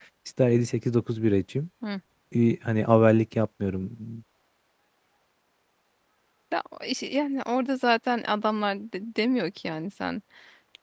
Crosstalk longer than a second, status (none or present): none